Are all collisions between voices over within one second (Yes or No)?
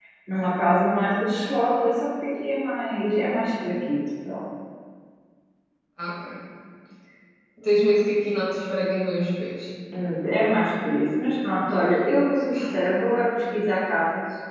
Yes